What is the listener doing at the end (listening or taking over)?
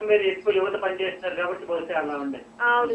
taking over